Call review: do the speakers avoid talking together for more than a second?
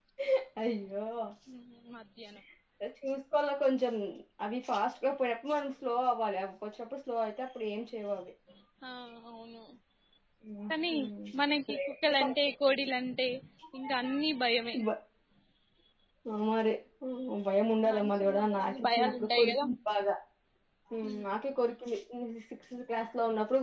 No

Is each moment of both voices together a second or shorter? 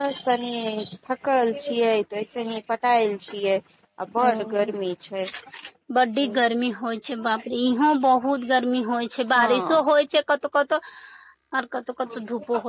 Yes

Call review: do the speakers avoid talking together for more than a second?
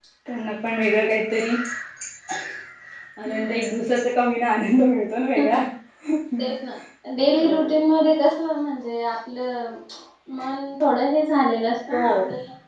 Yes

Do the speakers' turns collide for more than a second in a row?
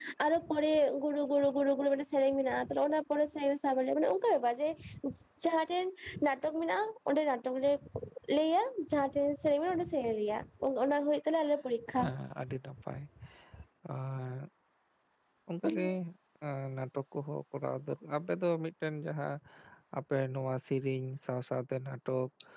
No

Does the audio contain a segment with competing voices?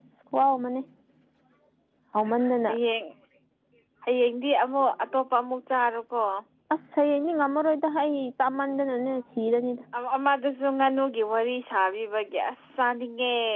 No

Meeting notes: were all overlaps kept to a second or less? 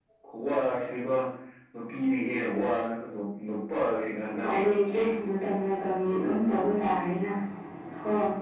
Yes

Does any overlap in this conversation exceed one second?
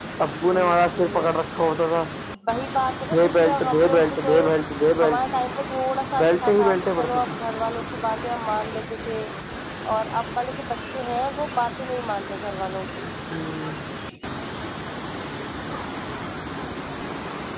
Yes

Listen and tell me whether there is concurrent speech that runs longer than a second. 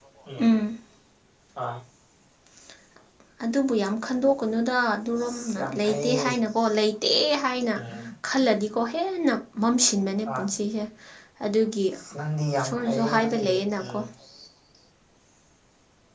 Yes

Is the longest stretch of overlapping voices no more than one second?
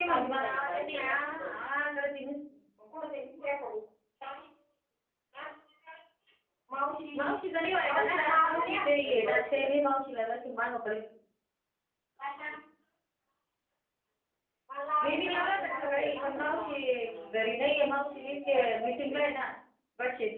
No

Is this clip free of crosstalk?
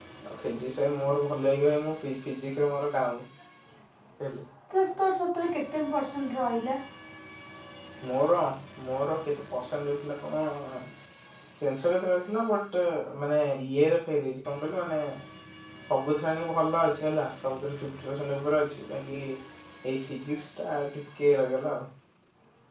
Yes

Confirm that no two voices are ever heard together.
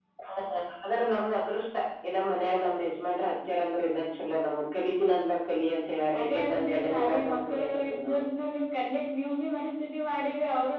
No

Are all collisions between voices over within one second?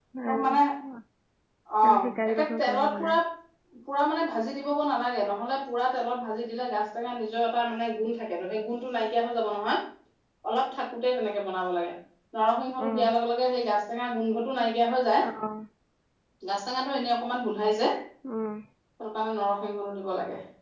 No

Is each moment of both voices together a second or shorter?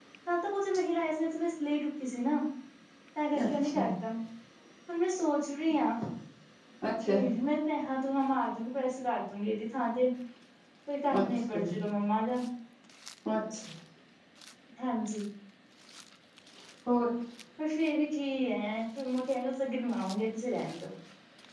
Yes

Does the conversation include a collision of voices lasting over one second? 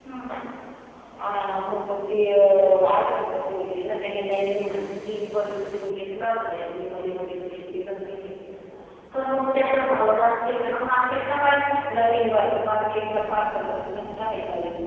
No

